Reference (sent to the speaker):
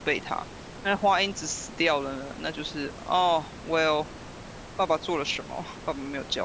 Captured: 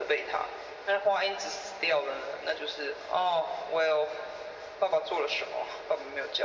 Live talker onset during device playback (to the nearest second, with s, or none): none